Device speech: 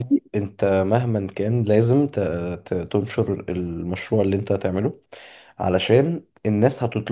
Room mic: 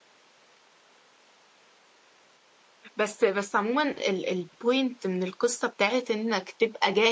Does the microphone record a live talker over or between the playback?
Yes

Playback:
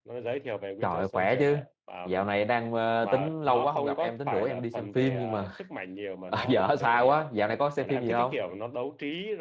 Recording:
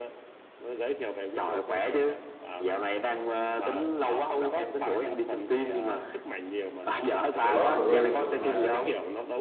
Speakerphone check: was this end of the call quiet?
No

